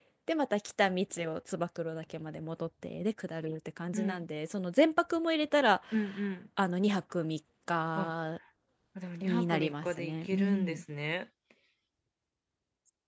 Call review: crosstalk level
present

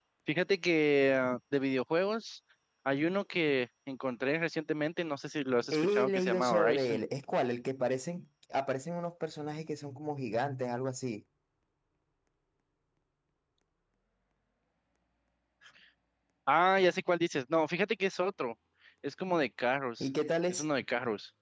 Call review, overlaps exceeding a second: present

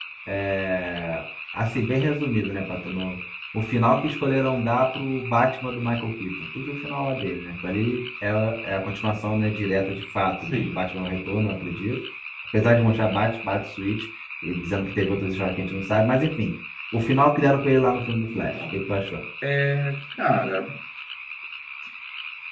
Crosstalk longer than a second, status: none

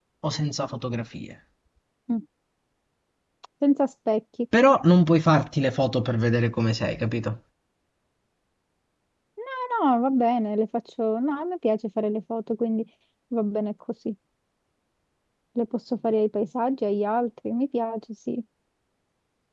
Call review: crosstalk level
none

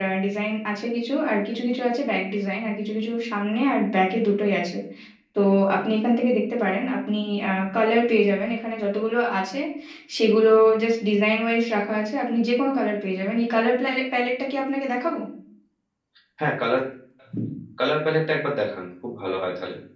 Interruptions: none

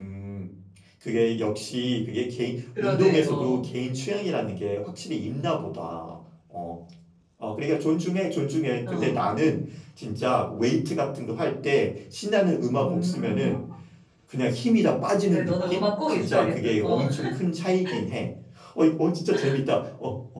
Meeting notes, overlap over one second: present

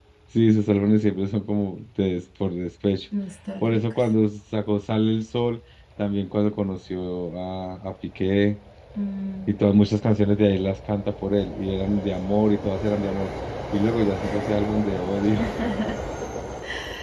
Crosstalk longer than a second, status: none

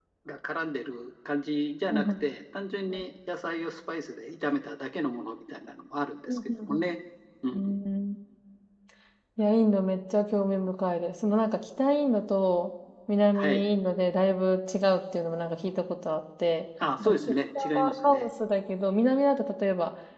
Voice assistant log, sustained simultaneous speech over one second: present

